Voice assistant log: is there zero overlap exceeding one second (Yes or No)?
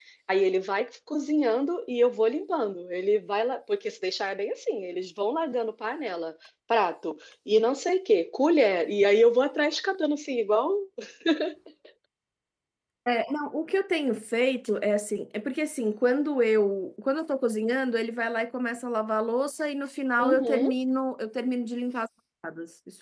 Yes